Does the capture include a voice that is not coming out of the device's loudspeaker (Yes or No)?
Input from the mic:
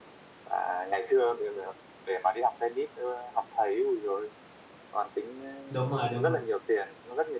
Yes